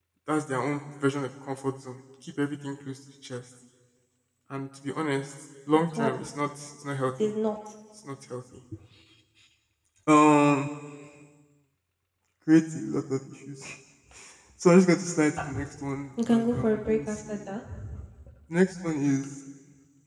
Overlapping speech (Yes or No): Yes